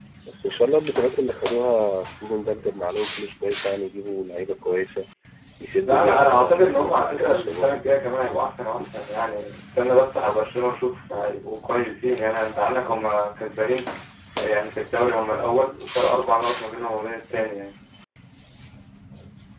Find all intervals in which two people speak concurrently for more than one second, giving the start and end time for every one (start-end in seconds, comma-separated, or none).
5.9-8.0